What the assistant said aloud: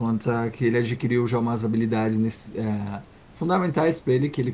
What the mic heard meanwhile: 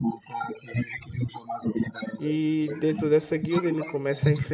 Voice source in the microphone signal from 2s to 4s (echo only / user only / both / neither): both